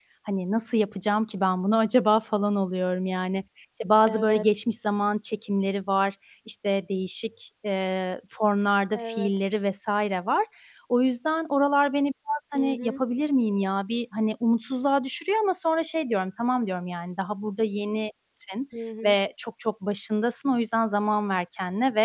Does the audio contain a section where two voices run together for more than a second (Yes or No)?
No